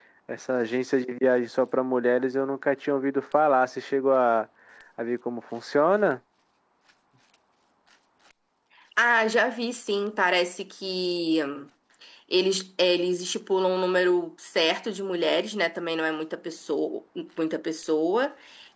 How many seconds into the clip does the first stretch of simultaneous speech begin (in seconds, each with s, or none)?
none